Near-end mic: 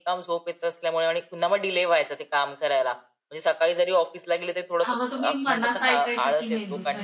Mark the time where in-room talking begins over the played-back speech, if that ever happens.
4.8 s

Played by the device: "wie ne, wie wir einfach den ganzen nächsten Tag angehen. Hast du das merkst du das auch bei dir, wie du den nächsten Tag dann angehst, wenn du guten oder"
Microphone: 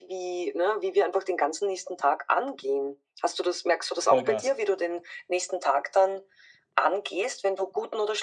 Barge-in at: 4.1 s

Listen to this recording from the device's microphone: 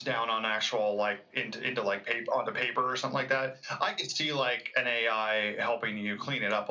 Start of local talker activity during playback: none

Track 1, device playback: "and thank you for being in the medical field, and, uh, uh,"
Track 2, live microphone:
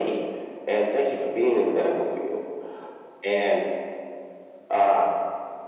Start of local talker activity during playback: none

